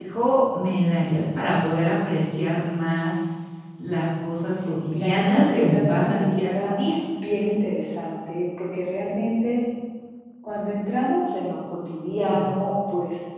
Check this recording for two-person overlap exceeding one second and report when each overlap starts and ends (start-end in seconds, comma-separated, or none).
4.9-6.8